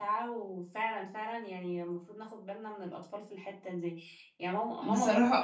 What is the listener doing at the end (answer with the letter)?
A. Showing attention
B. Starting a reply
A